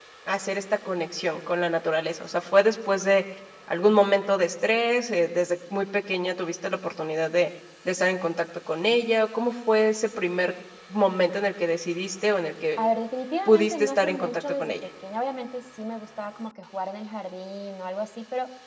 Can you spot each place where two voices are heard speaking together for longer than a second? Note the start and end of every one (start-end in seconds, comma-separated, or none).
13.5-14.7